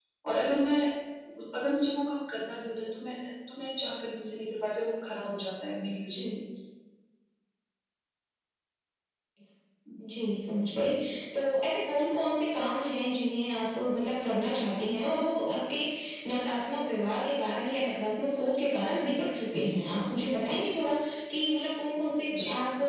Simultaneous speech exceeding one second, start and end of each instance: none

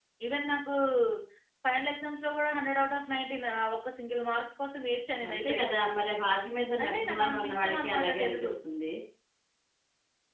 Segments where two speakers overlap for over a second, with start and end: 6.8-8.5

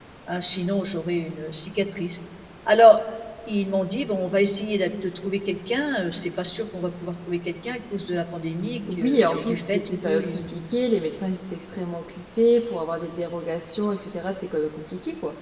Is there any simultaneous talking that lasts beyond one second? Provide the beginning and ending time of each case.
8.9-10.5

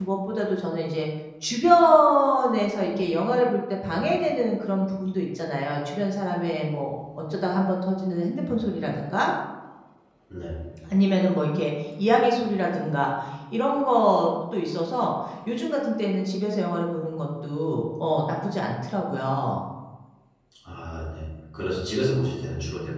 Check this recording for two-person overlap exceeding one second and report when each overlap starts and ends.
none

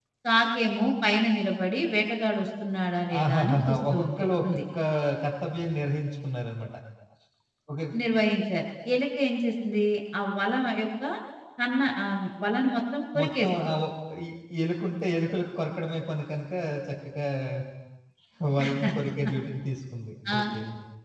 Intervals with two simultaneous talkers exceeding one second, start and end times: 3.2-4.6

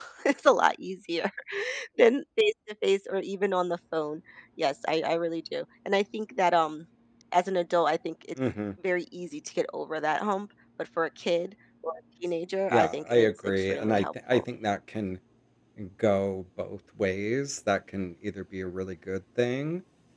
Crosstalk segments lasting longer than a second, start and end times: 12.7-14.4

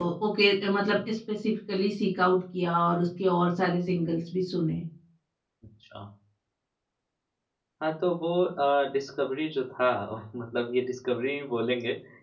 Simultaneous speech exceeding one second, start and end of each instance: none

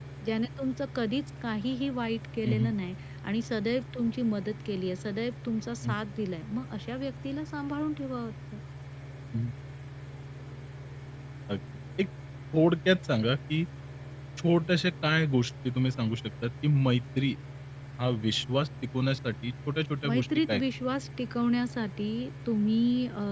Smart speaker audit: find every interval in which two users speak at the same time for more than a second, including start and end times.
none

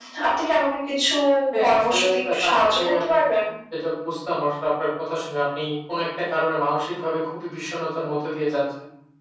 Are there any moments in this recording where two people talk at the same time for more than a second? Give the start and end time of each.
1.6-3.1

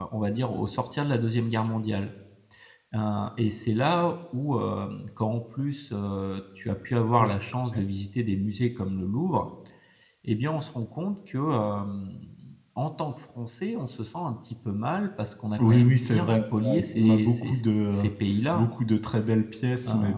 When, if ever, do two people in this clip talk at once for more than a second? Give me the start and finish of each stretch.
15.6-17.5

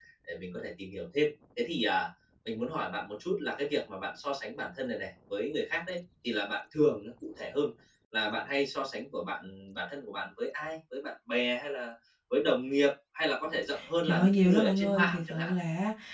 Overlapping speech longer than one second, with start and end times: 14.0-15.5

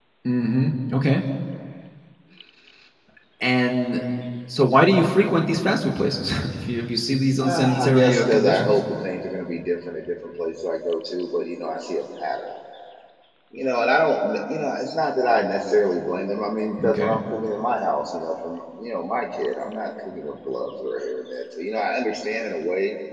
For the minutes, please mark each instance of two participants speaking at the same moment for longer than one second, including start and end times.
7.4-8.8

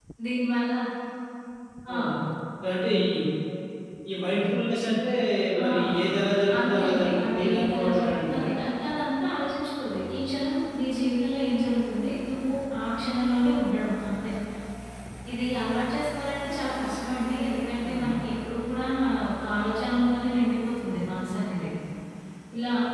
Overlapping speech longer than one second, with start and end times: 6.6-8.5

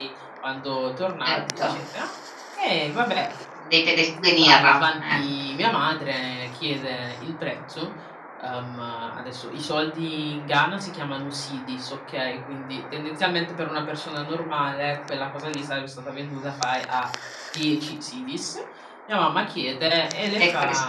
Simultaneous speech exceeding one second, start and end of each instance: none

